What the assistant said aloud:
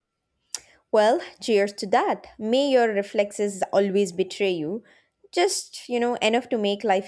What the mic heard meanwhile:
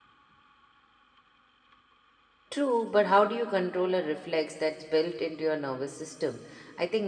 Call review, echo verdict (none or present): none